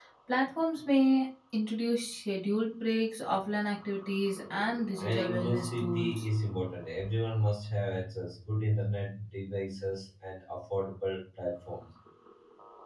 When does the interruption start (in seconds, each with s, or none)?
5.0 s